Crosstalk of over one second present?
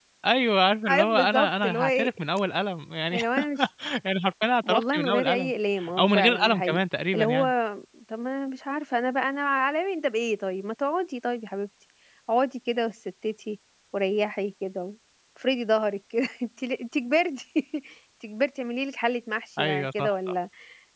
Yes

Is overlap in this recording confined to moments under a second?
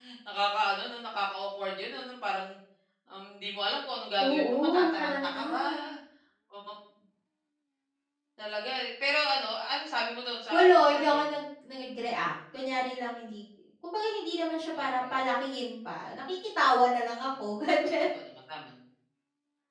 No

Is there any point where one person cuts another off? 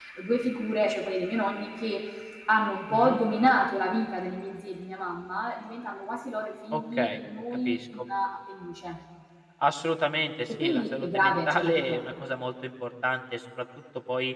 Yes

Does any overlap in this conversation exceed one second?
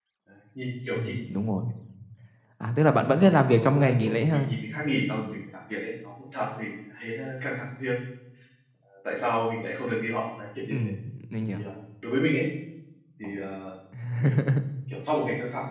Yes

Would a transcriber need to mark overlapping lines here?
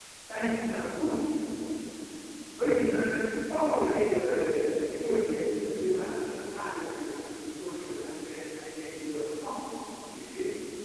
No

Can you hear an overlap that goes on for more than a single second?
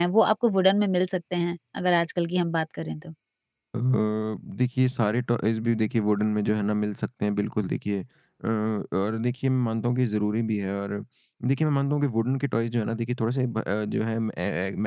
No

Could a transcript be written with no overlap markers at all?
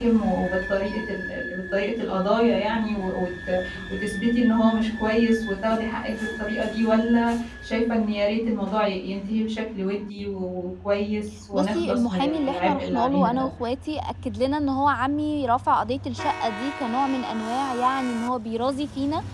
No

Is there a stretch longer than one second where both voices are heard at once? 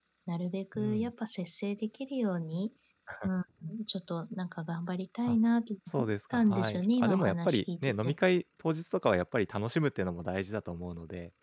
Yes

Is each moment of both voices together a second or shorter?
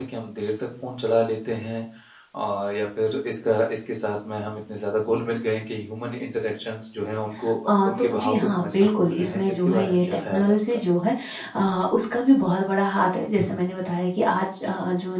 No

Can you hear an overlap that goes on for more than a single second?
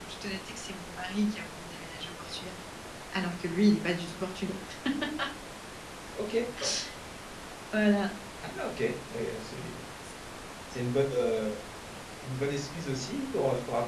No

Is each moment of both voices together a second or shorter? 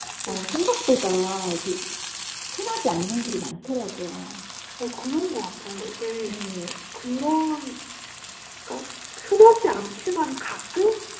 Yes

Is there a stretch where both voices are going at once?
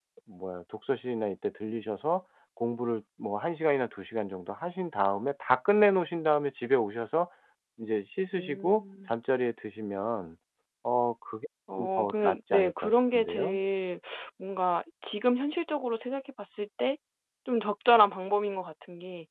Yes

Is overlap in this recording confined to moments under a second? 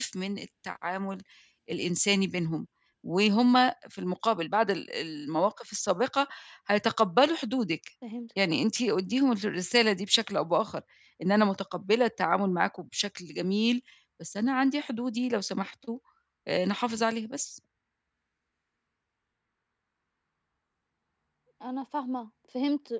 Yes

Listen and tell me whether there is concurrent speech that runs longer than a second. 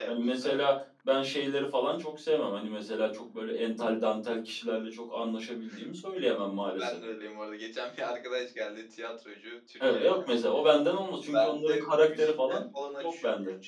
Yes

